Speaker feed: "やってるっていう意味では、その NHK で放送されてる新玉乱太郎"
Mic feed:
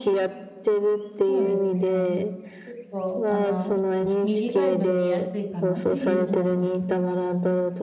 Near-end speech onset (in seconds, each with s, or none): 1.3 s